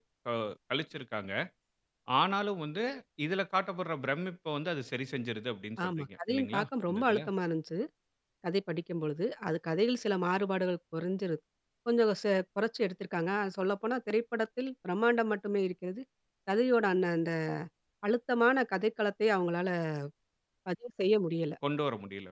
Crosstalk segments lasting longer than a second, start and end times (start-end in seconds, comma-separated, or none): 5.8-7.2